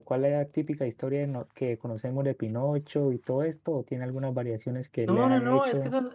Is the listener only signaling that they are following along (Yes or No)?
No